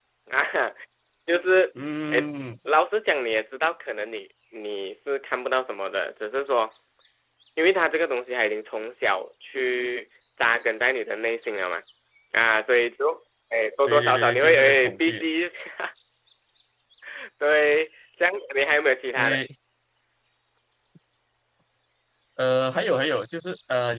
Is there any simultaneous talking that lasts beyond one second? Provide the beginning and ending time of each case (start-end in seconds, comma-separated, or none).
13.9-15.2